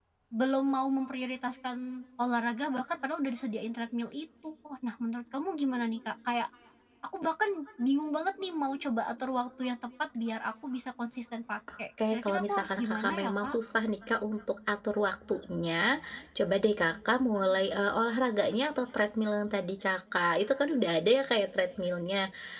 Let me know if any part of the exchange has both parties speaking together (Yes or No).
Yes